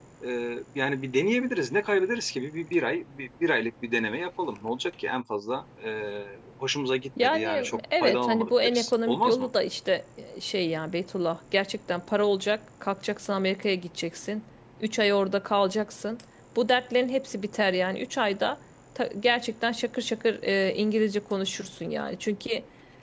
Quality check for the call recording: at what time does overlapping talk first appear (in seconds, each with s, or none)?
7.2 s